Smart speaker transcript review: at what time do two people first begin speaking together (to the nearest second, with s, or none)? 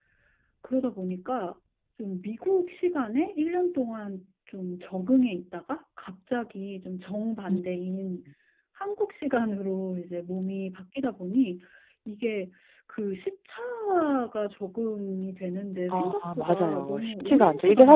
16 s